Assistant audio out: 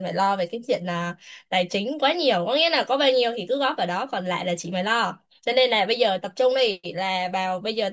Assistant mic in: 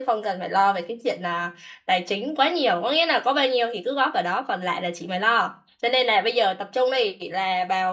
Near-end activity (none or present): none